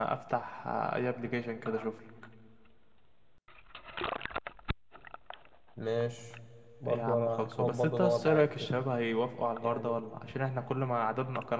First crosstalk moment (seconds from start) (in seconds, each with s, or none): 6.9 s